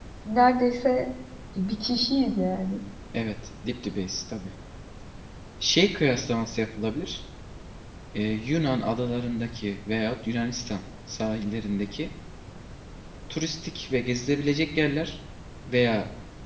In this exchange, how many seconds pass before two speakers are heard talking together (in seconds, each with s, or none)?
none